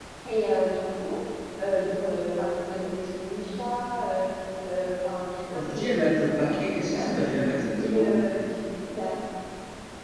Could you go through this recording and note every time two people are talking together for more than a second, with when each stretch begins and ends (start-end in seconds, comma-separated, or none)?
5.5-7.3